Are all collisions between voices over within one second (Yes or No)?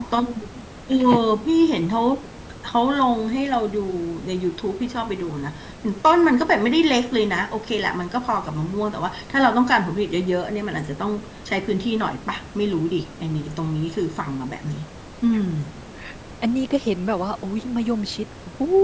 Yes